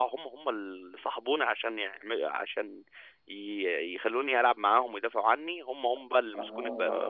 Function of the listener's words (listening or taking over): taking over